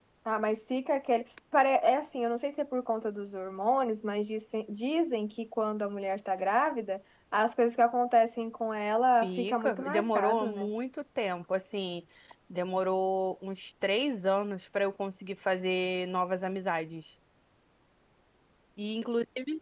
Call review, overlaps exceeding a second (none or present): present